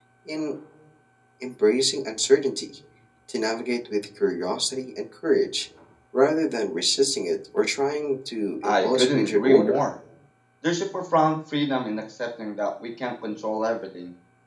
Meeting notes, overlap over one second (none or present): present